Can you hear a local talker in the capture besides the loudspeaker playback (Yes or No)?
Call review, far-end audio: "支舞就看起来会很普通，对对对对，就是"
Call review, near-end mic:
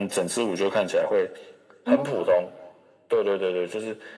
Yes